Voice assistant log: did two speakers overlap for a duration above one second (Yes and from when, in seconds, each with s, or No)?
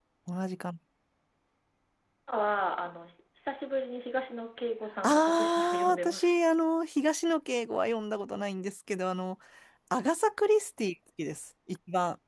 Yes, from 5.0 s